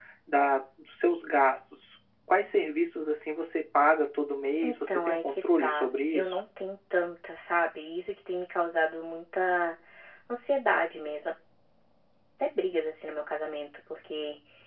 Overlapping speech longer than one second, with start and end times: 4.6-6.4

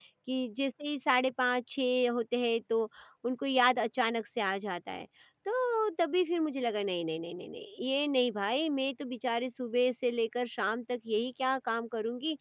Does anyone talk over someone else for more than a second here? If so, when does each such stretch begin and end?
none

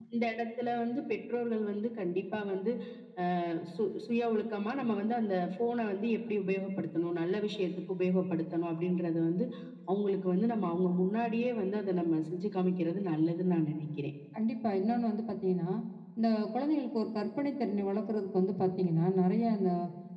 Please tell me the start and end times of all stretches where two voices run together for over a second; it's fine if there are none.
none

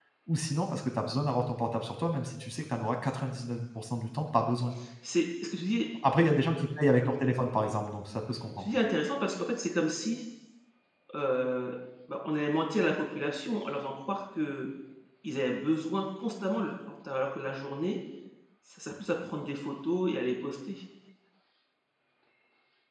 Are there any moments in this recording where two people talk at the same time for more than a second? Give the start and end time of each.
none

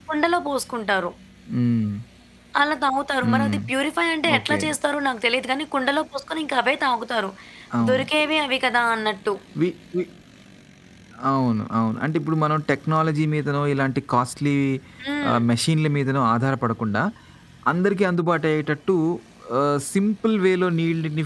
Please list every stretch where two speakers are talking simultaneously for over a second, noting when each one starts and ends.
none

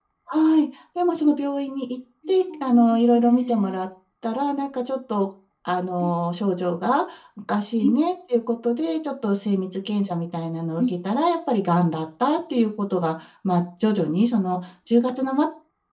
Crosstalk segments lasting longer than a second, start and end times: 2.3-3.8

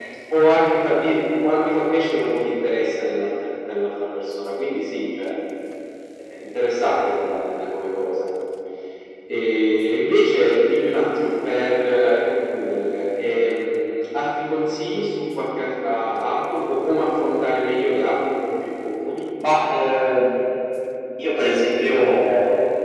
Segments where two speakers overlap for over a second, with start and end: none

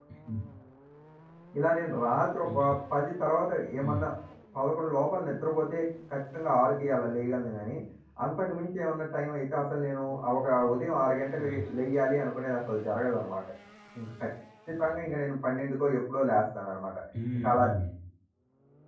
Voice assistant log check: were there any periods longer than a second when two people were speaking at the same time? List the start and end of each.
none

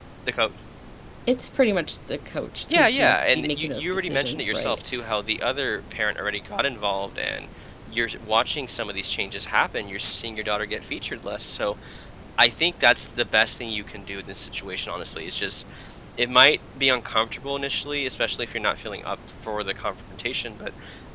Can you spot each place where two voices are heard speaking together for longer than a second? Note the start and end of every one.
2.7-4.8

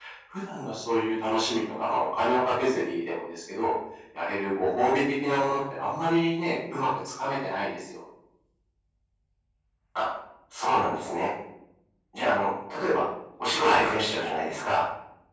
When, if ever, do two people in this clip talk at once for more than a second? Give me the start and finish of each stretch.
none

